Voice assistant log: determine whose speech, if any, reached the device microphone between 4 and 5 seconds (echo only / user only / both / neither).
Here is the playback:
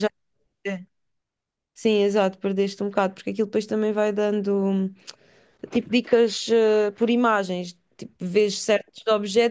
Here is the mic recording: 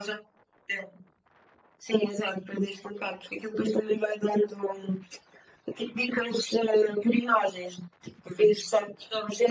echo only